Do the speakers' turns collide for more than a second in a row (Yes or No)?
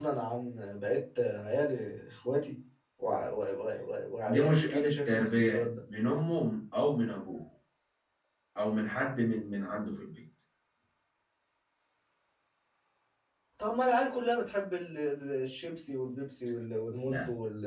Yes